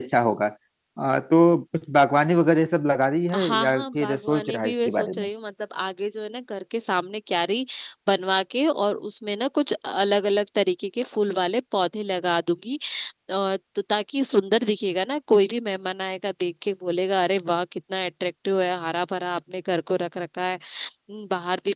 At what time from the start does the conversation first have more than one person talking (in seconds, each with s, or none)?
3.3 s